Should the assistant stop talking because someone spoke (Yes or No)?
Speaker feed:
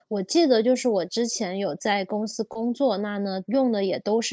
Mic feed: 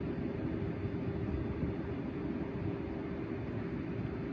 No